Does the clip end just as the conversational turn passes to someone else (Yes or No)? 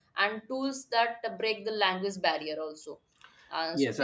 Yes